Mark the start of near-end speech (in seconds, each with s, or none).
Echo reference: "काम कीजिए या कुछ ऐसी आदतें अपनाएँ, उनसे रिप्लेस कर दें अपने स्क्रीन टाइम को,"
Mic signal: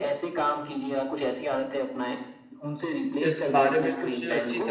3.3 s